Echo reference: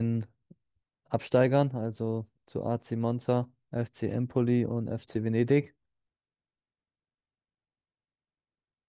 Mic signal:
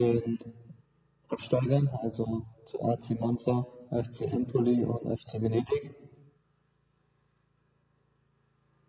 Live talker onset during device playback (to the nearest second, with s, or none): none